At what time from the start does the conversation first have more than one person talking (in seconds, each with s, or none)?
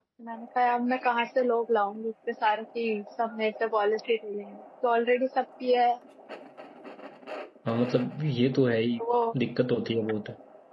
none